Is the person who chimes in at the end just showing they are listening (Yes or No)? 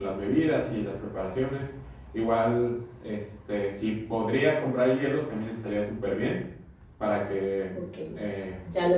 No